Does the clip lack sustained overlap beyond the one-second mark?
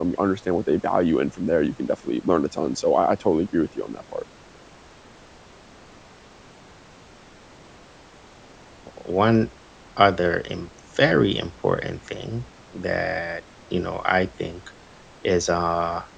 Yes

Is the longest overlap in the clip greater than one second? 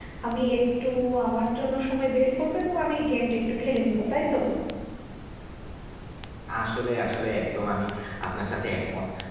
No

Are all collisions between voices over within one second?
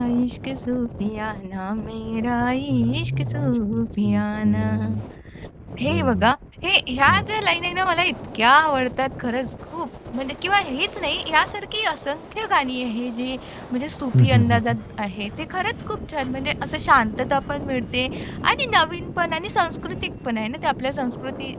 No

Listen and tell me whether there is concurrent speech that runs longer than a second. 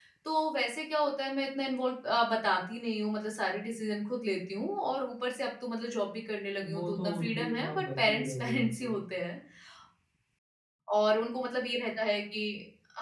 Yes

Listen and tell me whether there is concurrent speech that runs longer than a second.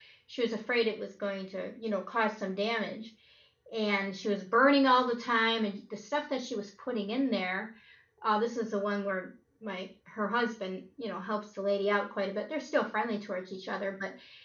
No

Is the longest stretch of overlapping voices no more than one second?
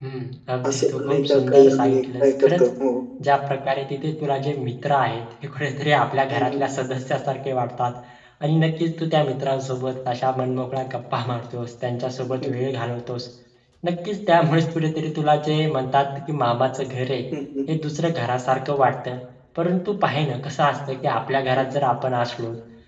No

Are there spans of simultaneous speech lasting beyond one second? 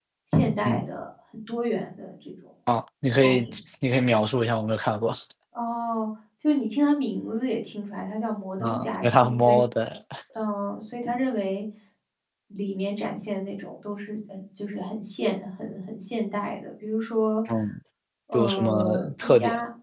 Yes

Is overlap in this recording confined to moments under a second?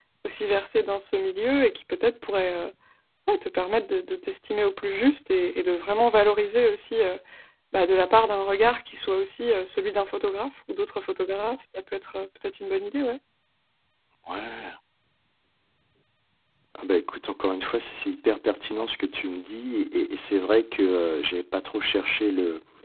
Yes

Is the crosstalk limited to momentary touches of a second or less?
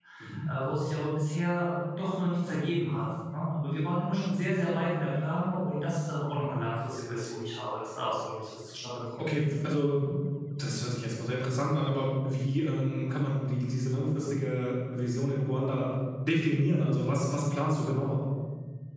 Yes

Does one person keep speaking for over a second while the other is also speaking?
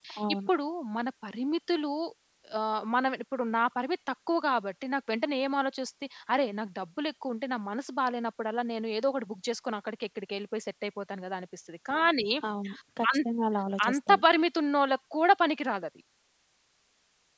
No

